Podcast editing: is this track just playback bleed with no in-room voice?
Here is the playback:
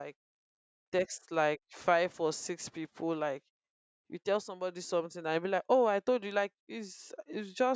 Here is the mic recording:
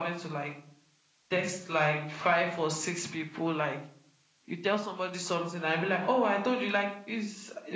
Yes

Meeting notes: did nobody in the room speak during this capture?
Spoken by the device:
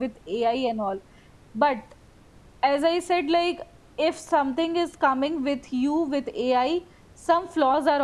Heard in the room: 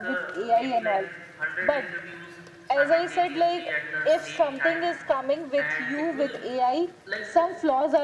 No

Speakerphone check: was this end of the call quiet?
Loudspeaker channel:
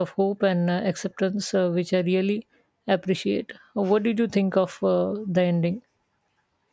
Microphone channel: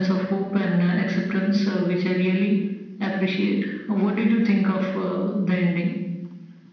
Yes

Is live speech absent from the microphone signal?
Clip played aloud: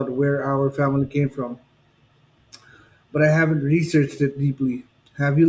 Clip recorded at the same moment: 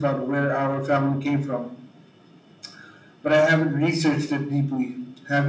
Yes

